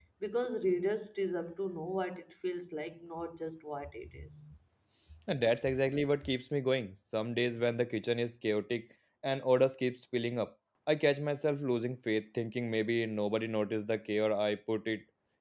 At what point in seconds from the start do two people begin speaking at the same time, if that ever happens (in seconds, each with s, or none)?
none